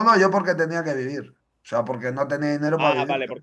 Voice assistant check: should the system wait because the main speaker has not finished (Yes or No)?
No